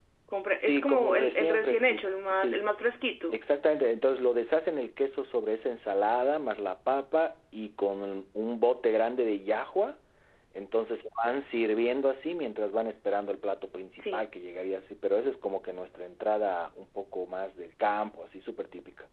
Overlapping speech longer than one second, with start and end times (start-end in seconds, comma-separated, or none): 0.6-2.6